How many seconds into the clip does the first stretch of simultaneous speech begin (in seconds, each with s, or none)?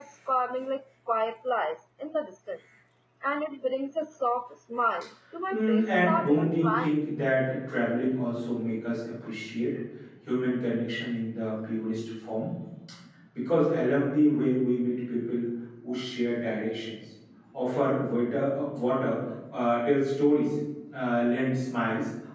5.5 s